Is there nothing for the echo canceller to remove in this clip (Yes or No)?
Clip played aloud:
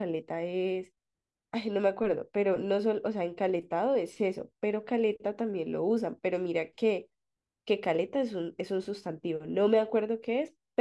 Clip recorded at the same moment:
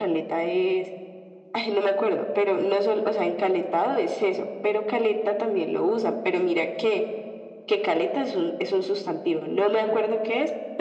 No